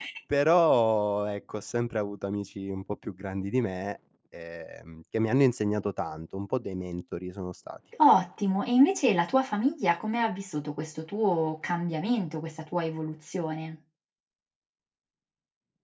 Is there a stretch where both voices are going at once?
No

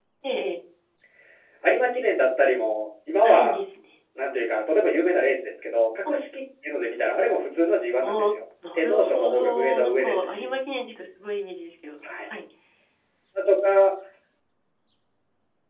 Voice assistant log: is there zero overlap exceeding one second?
No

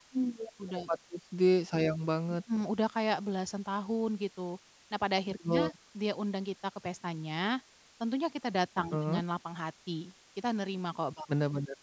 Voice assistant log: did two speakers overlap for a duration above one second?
No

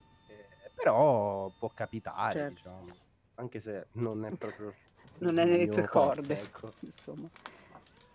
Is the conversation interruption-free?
No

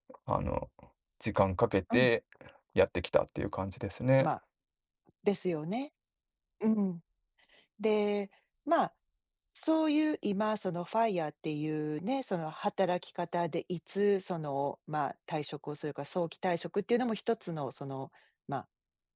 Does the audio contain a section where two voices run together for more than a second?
No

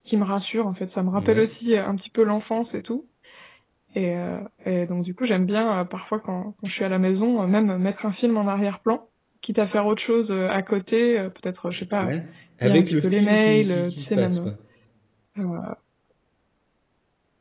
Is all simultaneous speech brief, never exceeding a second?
No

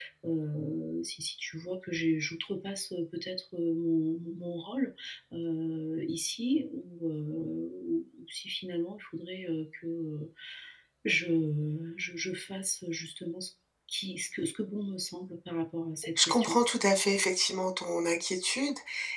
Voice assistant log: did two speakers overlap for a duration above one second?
No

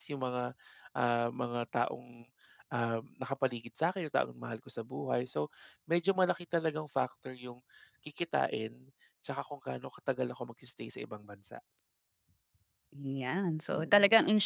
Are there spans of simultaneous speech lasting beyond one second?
No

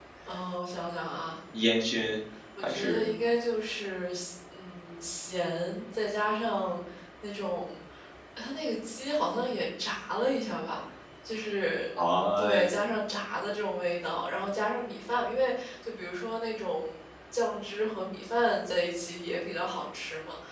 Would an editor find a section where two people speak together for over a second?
No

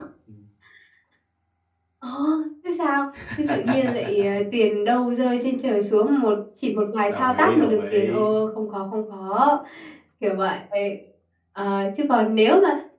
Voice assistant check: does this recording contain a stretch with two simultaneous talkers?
Yes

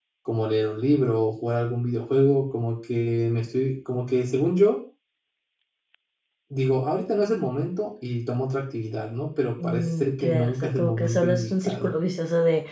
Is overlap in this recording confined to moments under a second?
No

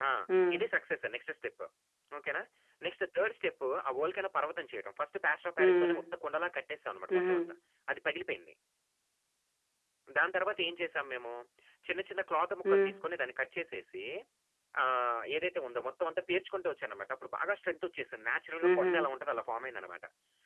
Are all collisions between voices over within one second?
Yes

